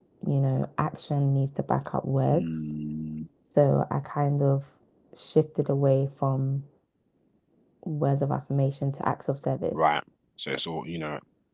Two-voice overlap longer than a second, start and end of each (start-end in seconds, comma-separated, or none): none